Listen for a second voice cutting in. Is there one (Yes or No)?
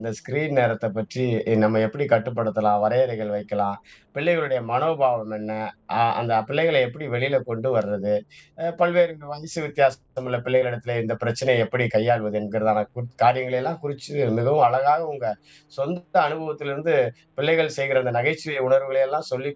No